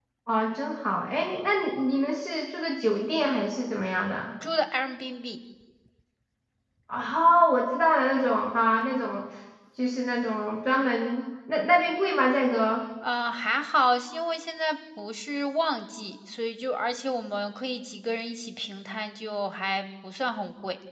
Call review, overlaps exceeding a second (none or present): none